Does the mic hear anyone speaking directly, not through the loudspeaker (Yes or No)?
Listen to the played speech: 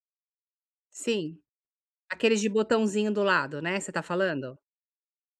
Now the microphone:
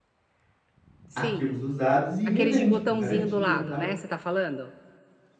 Yes